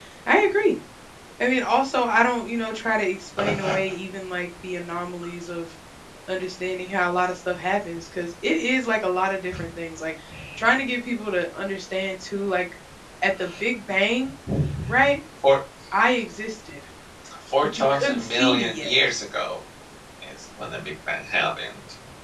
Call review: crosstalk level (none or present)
present